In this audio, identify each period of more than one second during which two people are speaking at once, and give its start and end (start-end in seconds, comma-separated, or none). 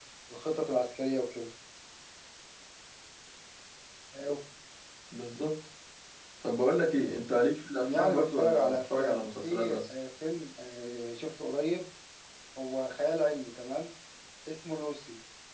7.8-9.8